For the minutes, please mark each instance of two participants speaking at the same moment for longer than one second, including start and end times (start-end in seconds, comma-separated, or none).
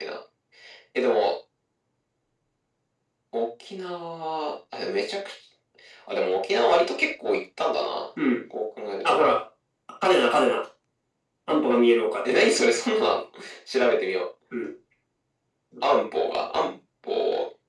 none